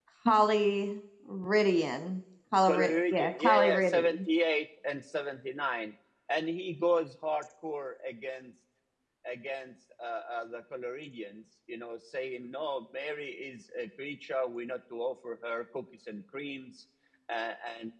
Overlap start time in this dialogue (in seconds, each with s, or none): 2.7 s